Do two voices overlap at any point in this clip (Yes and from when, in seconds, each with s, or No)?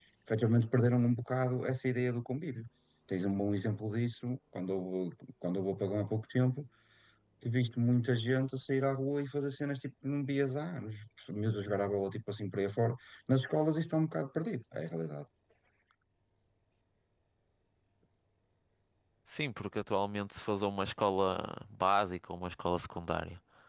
No